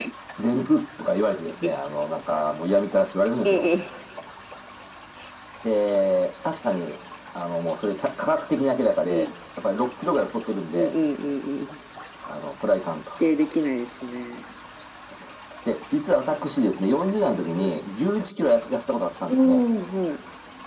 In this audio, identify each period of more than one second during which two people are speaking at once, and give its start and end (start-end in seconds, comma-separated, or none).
none